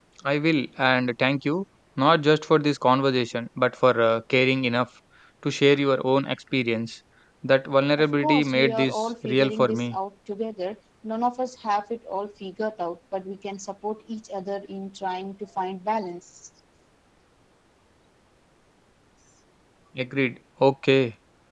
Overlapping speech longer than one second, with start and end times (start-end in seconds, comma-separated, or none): 8.2-10.0